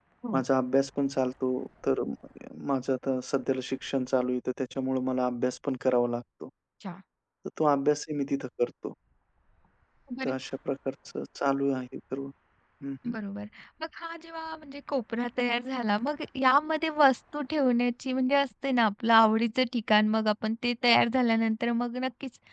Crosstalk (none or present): none